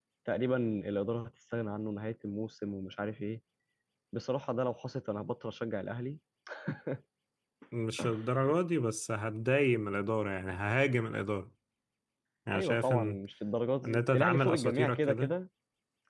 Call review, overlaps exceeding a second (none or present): present